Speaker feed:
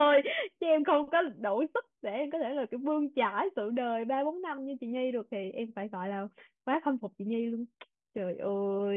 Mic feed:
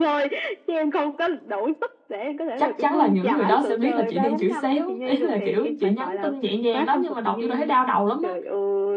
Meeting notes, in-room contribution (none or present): present